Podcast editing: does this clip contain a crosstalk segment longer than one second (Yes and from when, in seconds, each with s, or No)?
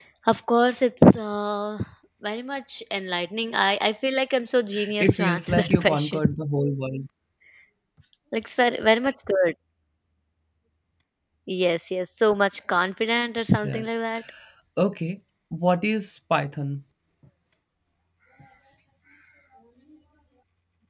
Yes, from 5.0 s